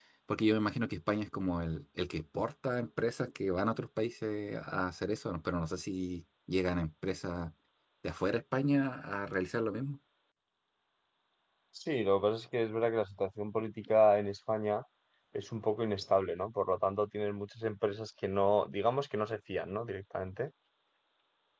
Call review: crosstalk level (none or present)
none